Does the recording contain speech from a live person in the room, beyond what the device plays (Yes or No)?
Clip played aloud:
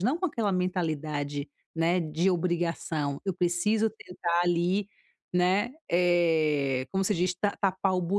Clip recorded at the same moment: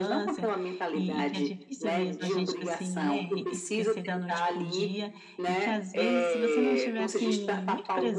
Yes